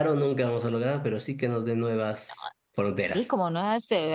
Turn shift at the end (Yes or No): Yes